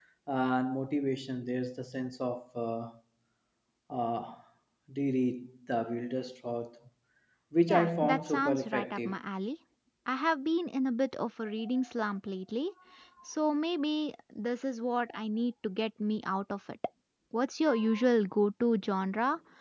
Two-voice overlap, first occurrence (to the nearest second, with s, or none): 8 s